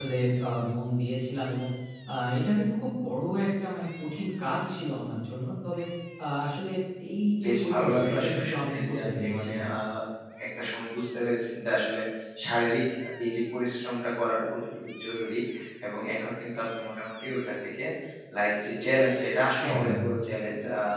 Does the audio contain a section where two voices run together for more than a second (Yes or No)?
Yes